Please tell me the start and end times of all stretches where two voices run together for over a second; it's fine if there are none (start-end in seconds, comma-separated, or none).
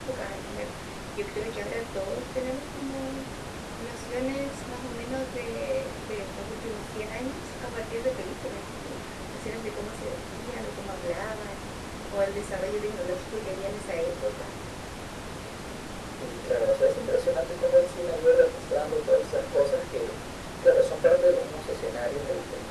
none